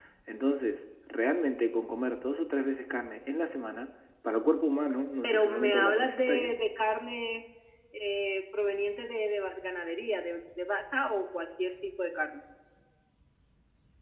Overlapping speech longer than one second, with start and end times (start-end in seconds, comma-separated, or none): 5.2-6.6